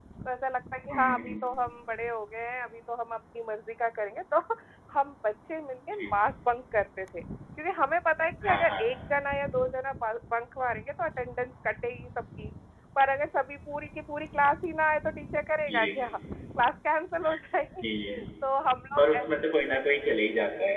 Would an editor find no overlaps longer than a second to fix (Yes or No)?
Yes